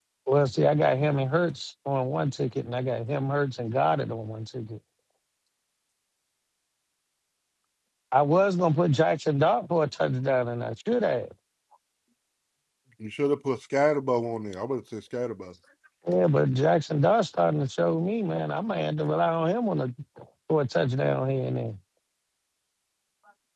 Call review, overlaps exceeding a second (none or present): none